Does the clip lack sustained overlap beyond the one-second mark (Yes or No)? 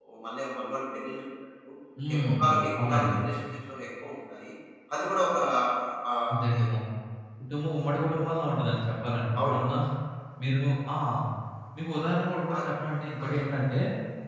Yes